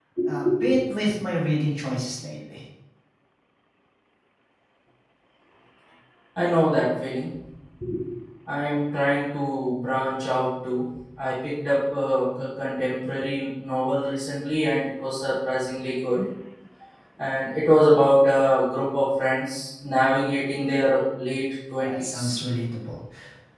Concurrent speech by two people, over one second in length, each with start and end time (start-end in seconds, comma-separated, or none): none